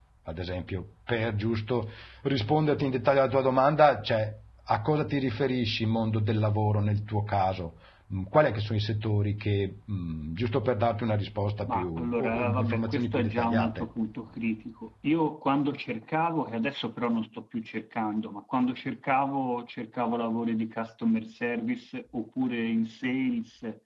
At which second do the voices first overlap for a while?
12 s

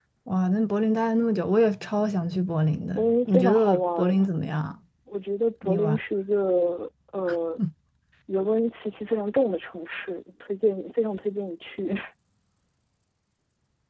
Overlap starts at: 3 s

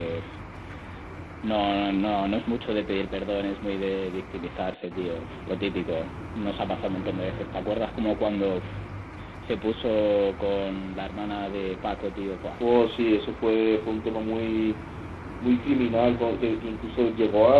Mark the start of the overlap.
none

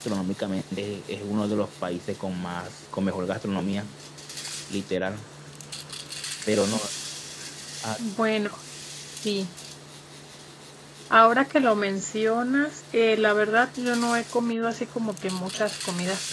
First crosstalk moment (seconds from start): none

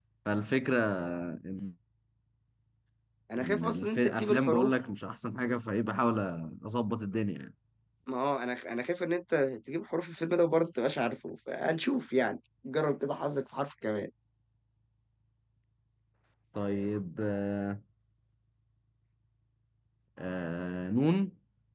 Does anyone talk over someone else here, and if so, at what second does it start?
3 s

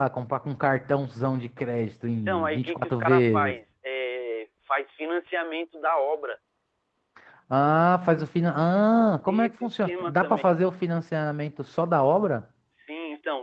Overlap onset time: 2 s

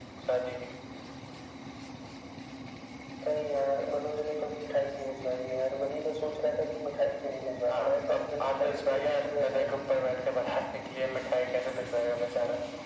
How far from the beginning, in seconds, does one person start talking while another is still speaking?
8 s

